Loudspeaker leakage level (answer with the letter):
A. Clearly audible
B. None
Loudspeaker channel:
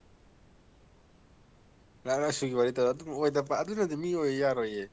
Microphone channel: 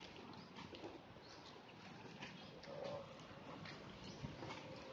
B